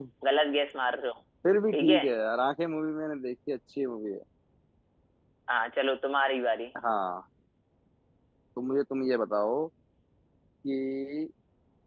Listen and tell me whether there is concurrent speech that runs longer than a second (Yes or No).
No